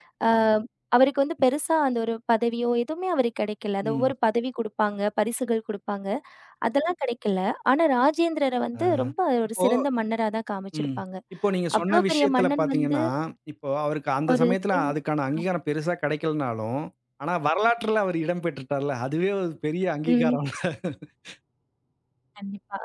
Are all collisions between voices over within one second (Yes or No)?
No